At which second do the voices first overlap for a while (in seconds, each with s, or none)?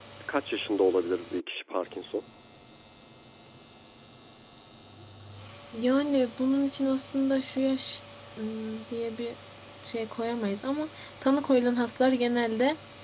none